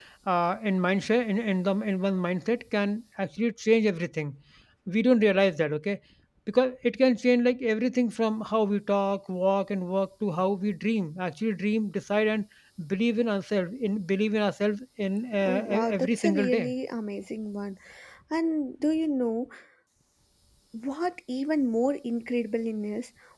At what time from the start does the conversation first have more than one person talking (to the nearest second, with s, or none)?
15 s